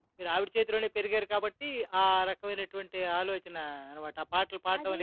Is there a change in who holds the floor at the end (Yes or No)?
Yes